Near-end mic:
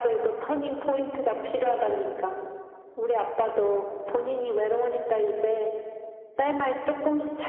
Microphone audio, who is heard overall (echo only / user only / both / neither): echo only